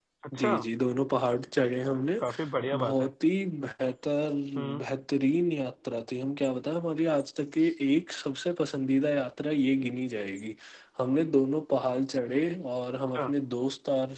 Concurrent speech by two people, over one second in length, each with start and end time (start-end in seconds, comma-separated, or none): none